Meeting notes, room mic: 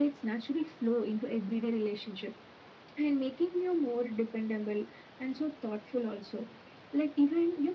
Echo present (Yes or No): Yes